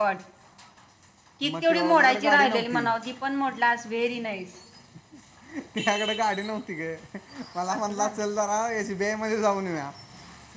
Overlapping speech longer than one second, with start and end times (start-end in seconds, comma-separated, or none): 1.4-2.9